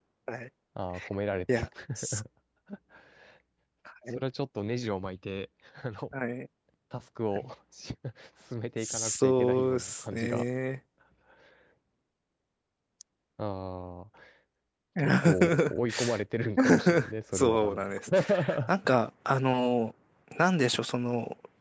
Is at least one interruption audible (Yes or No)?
Yes